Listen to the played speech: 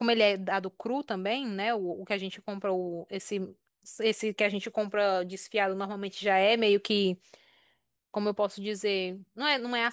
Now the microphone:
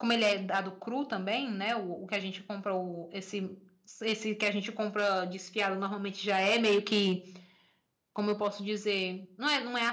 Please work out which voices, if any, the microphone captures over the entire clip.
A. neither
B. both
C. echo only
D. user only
C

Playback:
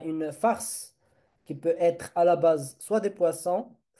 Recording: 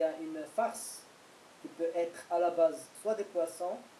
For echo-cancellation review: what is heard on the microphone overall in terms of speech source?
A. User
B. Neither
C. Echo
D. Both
C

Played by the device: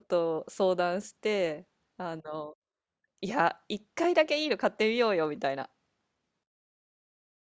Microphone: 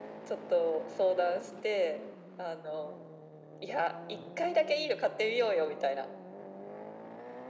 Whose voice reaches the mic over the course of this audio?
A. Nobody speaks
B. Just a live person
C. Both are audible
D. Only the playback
D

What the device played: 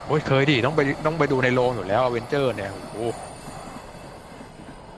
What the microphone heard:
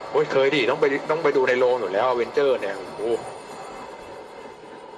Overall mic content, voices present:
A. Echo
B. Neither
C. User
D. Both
A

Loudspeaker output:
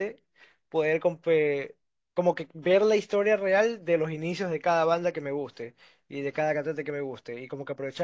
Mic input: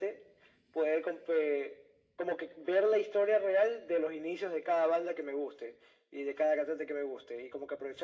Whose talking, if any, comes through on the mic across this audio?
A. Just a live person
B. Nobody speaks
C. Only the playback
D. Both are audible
C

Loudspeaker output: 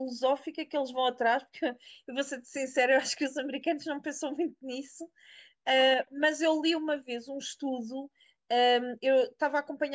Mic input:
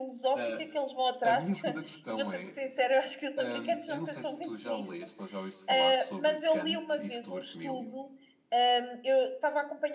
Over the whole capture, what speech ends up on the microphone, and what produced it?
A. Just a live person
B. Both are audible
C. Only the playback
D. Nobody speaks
B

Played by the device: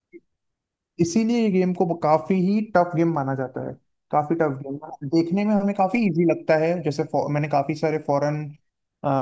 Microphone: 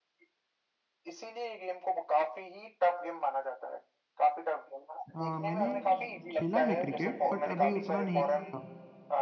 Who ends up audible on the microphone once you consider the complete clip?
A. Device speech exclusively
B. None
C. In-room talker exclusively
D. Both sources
D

